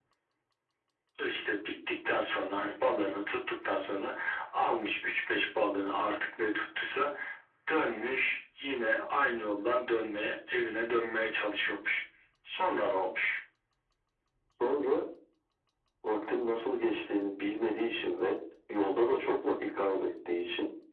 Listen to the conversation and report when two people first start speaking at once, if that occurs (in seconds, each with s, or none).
none